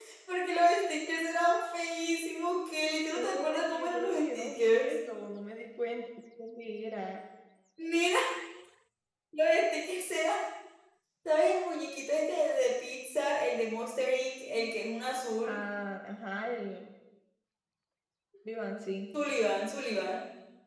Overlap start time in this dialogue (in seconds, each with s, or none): 3.1 s